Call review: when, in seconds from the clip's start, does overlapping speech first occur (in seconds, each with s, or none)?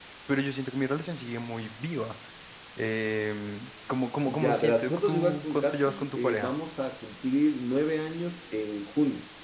4.3 s